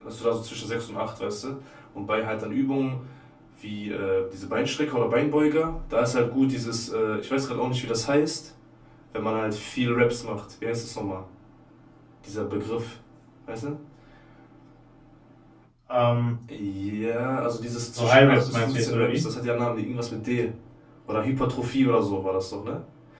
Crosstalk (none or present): present